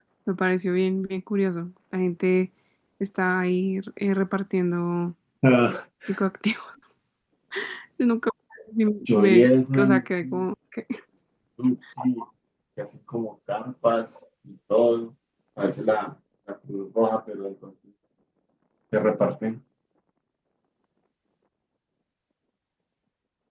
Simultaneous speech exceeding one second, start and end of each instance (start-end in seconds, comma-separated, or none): 9.1-10.4